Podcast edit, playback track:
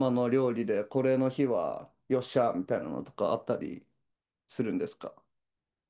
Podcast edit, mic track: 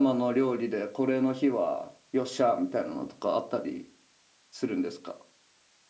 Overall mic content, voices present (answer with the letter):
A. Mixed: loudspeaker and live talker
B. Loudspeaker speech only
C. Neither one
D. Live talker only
B